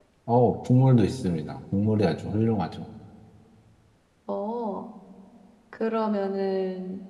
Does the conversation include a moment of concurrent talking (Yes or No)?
No